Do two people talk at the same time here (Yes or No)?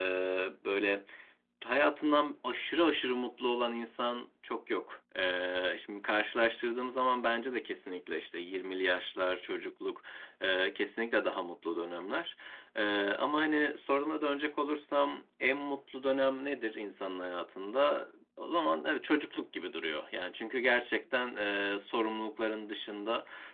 No